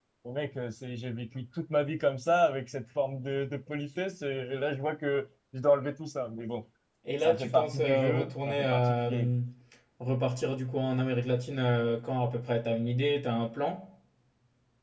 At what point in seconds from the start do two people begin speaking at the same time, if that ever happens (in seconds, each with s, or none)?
7.2 s